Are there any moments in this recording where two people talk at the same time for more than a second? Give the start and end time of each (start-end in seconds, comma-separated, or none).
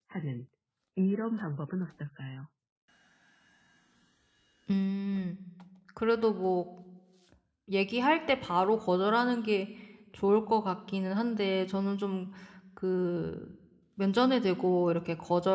none